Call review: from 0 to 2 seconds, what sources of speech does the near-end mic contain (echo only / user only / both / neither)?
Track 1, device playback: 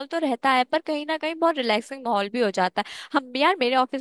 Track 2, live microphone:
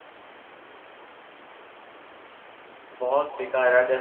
neither